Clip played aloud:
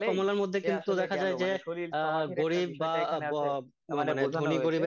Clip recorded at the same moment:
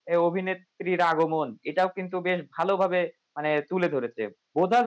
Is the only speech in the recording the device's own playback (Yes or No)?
No